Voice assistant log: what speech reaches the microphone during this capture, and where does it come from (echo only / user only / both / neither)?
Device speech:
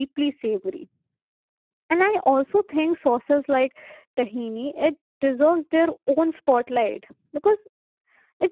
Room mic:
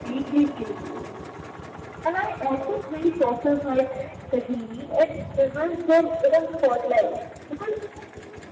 echo only